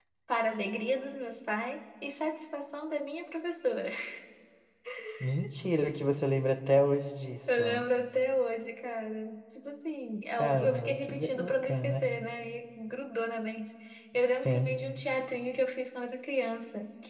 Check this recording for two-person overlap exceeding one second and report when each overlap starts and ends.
10.4-12.1

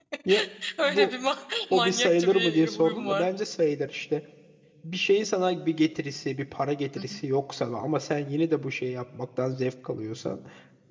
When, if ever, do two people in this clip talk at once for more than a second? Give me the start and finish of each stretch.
1.7-3.3

